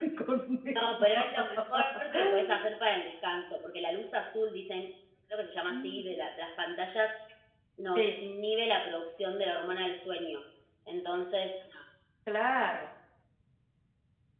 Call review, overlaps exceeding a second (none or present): none